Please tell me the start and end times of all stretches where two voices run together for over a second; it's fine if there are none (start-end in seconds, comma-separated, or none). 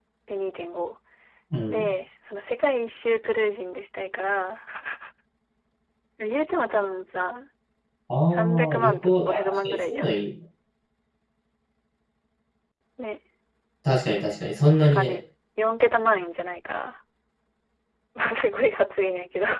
8.3-10.2